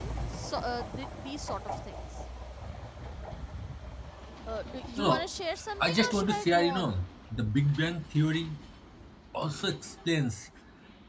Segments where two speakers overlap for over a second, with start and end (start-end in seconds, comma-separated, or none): 5.8-7.0